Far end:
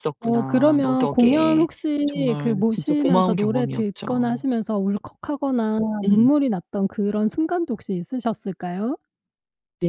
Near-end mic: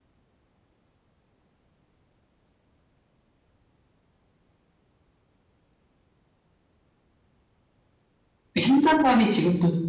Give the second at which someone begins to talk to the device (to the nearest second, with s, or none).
9 s